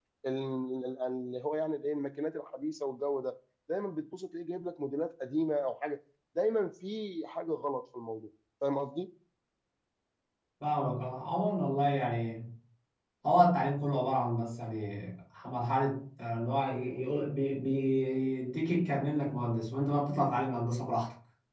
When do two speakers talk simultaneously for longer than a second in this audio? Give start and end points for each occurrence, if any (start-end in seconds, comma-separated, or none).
none